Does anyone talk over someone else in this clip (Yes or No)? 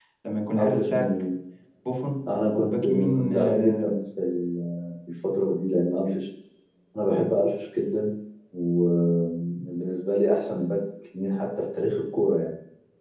Yes